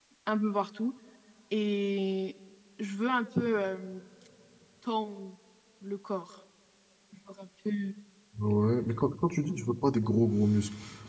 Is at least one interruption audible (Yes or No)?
No